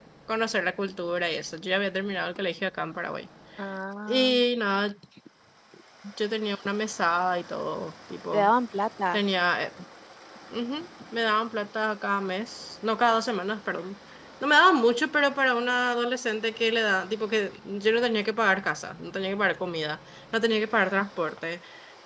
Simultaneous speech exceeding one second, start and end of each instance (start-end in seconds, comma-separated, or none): none